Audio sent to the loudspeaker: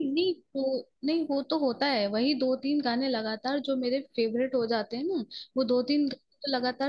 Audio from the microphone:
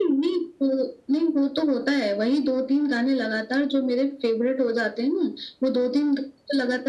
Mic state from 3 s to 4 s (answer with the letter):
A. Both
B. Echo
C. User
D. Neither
B